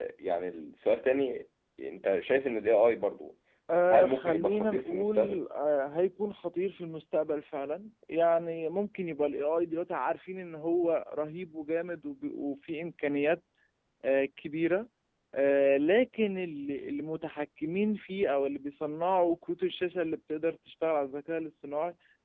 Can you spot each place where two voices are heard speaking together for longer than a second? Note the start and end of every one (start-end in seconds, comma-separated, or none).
3.9-5.4